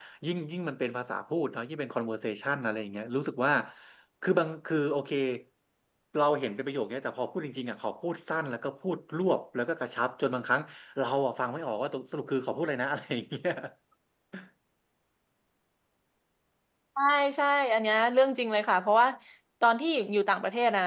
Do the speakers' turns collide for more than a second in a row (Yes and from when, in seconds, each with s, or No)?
No